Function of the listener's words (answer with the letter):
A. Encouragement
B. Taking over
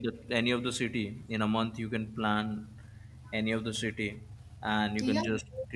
A